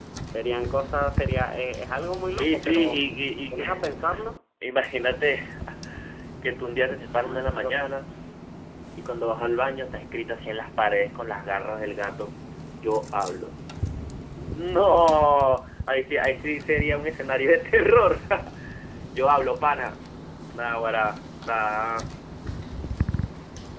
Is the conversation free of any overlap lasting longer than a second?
No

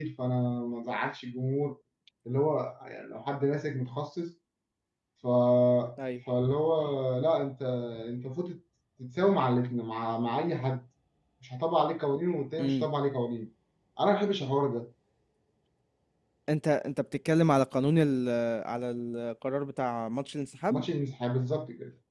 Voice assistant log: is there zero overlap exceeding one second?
Yes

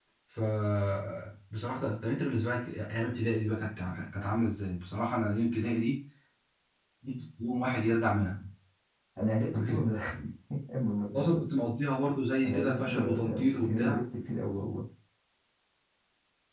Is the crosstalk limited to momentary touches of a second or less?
No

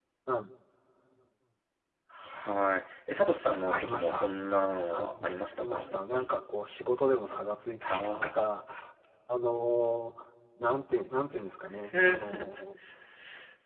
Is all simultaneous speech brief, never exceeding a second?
No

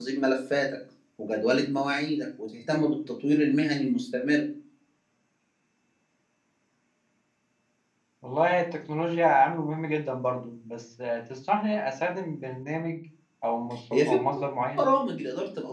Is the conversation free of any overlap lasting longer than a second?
Yes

